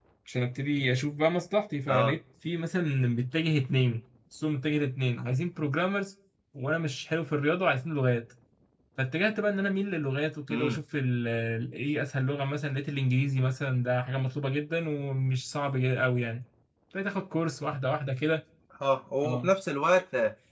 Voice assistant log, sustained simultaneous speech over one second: none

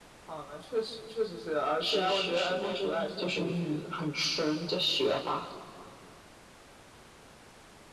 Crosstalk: present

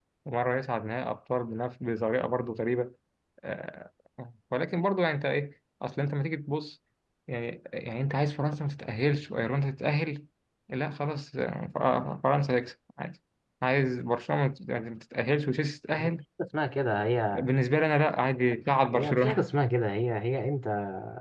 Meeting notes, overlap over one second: none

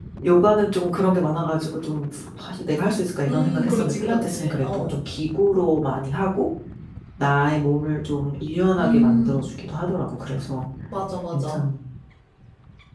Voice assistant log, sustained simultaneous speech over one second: present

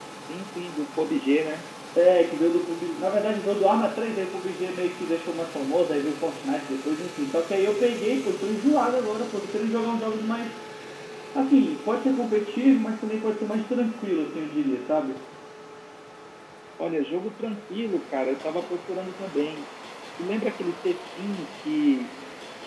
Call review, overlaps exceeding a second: none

